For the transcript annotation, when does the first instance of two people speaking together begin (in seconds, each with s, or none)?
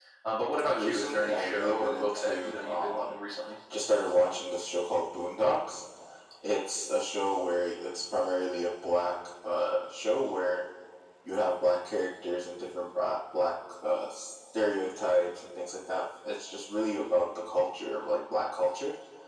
0.8 s